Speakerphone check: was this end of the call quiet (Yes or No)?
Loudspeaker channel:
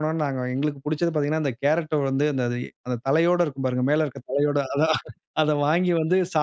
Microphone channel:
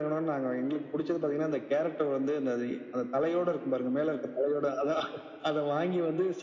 Yes